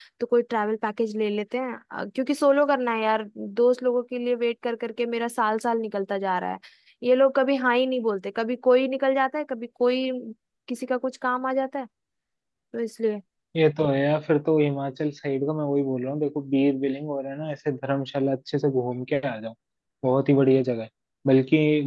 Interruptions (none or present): none